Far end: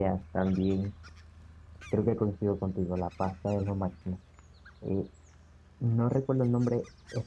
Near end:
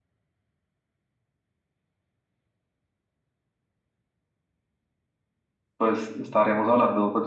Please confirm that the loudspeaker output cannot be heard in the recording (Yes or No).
Yes